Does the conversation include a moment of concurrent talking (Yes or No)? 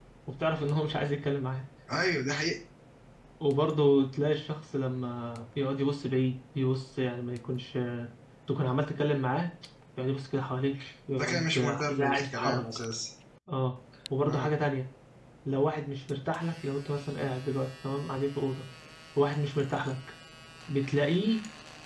Yes